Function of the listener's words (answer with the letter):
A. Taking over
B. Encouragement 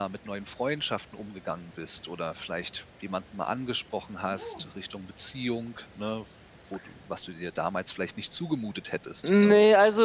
A